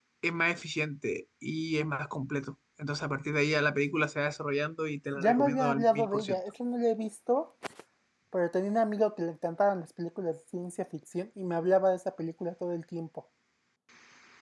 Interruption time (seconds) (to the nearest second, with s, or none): 5 s